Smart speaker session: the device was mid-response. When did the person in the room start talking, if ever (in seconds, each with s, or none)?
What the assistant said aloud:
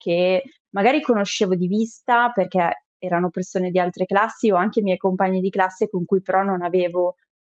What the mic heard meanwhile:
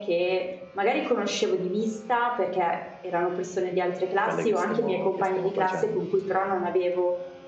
4.2 s